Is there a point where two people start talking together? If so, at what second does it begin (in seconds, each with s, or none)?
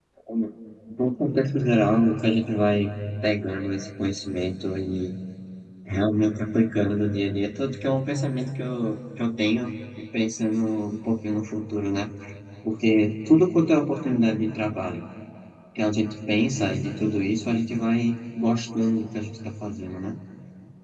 none